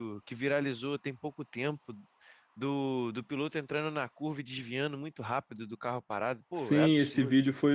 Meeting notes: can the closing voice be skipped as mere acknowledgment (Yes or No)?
No